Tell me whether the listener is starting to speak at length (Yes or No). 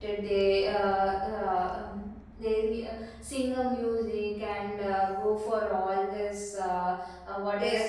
Yes